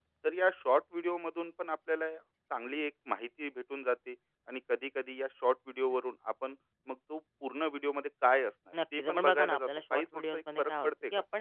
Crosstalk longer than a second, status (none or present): present